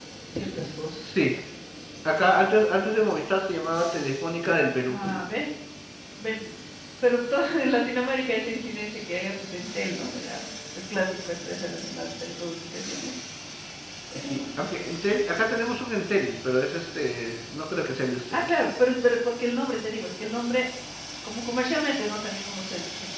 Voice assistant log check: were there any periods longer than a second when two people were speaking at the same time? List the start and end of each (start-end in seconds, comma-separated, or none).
none